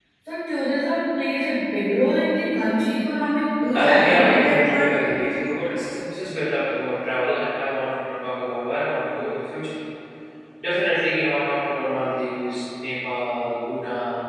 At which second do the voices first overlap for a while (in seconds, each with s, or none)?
3.7 s